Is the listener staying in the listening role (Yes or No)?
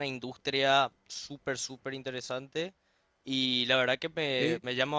Yes